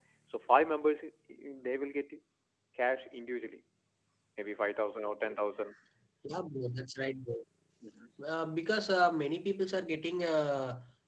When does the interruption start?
none

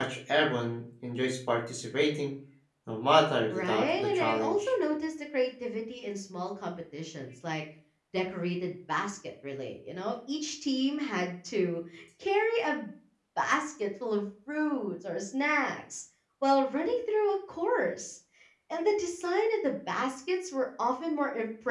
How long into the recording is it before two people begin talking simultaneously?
3.5 s

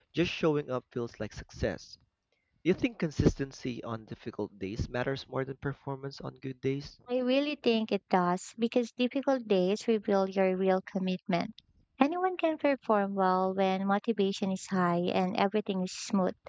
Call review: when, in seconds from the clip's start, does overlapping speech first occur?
none

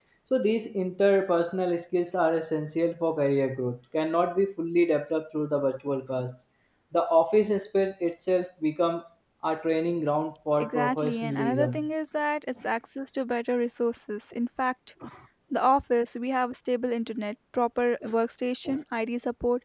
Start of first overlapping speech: 10.6 s

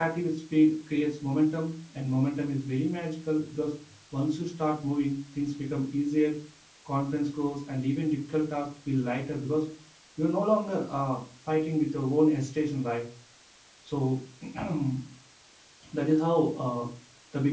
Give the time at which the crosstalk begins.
none

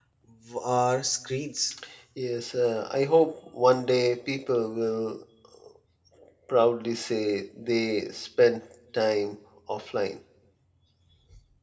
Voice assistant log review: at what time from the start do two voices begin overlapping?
none

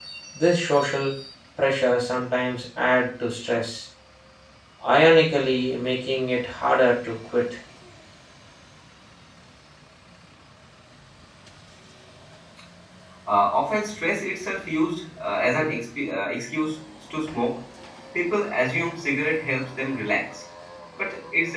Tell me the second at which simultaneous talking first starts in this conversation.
none

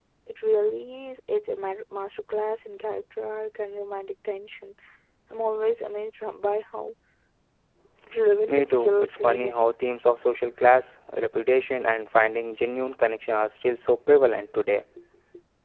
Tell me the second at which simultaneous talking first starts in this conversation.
8.5 s

